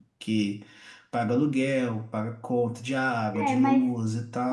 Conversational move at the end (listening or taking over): taking over